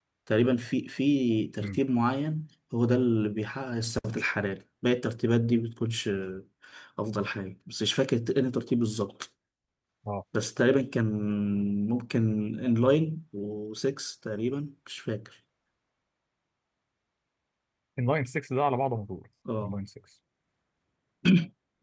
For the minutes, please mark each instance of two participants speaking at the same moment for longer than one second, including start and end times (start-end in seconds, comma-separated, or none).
none